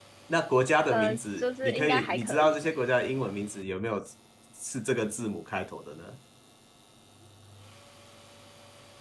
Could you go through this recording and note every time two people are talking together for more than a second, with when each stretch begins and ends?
0.9-2.5

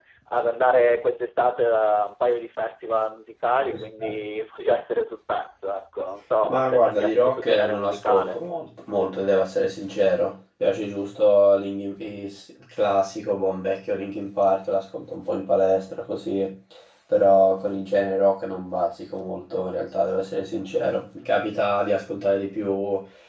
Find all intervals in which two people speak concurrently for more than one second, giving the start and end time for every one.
6.5-8.4

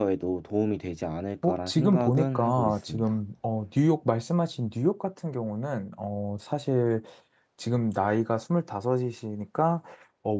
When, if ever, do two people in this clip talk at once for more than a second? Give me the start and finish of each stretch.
1.4-3.1

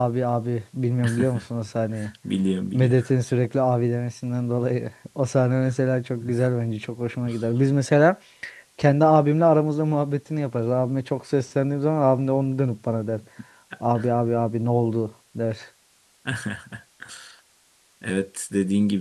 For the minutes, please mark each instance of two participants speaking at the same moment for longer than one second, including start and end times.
none

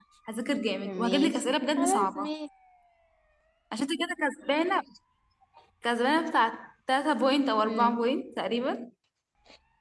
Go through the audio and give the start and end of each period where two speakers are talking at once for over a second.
0.8-2.3

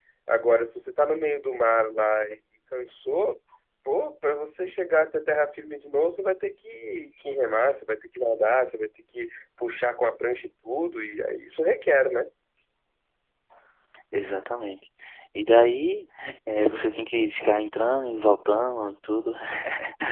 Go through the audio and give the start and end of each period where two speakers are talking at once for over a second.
none

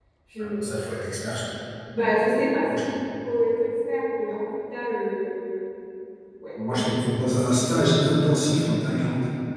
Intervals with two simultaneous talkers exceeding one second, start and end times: none

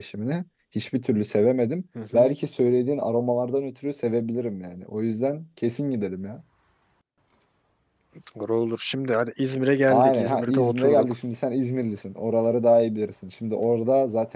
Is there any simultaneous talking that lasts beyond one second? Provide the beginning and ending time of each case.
9.9-11.1

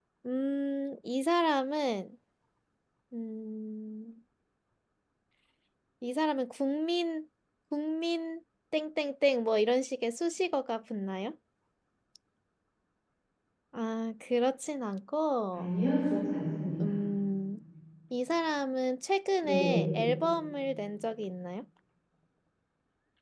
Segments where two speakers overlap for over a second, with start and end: none

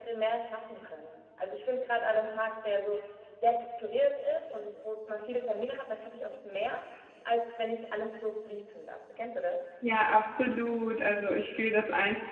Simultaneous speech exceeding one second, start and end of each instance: none

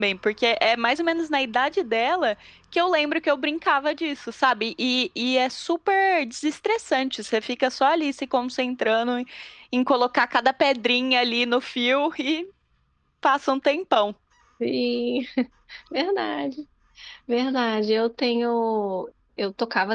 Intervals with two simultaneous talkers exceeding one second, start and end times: none

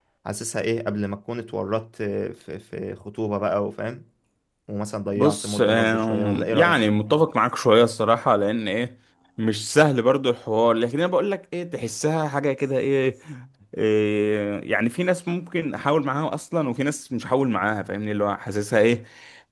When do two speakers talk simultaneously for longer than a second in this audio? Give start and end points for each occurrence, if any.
5.2-6.8

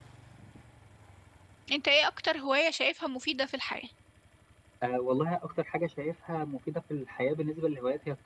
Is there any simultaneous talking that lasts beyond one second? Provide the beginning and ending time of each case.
none

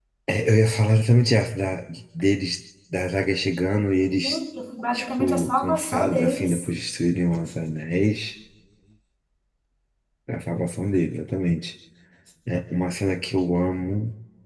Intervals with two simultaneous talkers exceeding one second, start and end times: 4.9-6.7

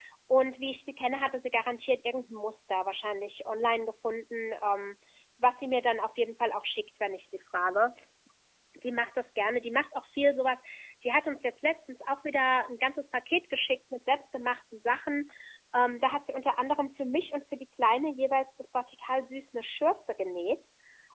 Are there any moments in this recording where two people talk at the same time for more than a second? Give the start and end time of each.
none

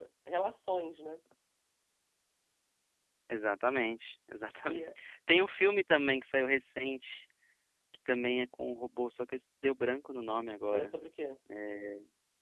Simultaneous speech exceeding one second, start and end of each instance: none

